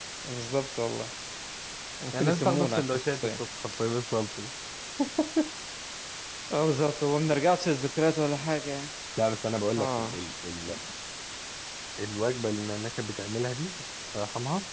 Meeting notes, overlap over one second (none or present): present